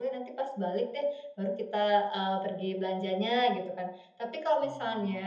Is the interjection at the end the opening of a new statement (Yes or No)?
No